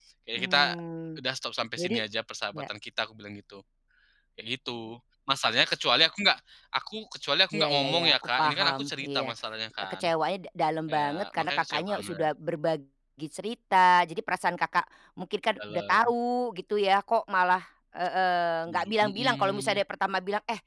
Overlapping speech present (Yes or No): Yes